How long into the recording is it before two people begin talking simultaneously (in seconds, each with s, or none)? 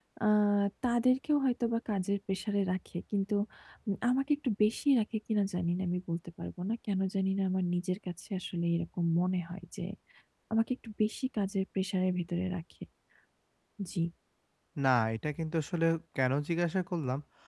none